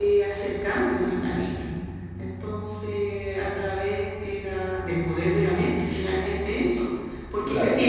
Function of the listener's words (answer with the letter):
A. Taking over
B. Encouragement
B